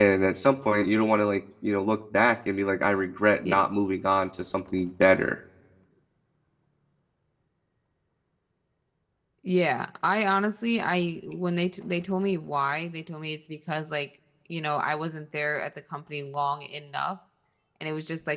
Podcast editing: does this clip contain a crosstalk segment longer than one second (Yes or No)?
No